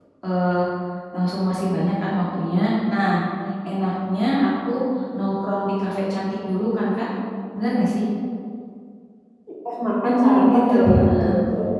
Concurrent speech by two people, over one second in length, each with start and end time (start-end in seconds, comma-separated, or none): 10.0-11.3